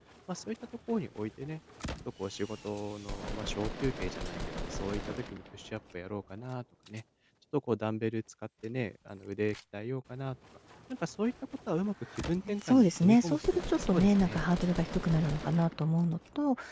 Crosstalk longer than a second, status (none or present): present